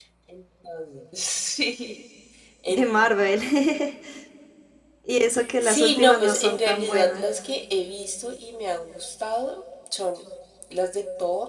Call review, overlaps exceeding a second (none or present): present